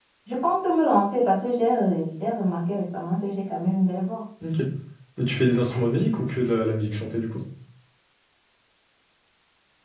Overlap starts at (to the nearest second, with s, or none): none